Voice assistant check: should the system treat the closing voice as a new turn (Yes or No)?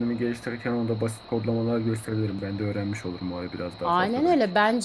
Yes